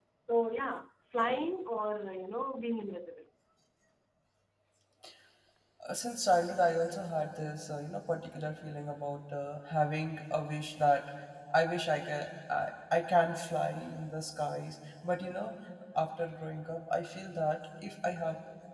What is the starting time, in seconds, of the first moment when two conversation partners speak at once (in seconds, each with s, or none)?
none